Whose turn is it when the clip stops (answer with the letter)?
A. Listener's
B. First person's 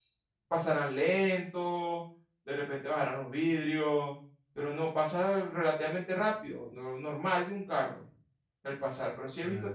A